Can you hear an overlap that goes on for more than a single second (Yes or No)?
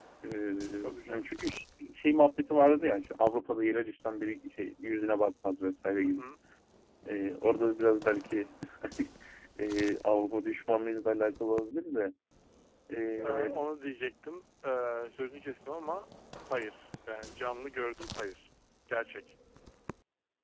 No